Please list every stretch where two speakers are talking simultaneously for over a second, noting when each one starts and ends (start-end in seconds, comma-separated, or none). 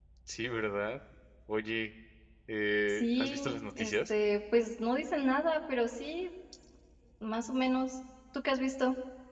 2.9-4.1